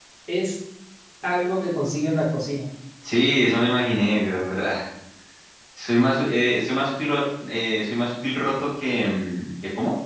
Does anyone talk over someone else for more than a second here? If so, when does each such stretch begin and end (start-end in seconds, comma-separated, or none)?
none